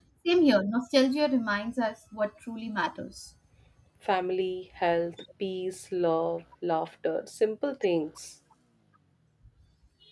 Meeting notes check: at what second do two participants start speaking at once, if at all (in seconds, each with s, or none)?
none